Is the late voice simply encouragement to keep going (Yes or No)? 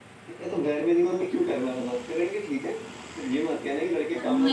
No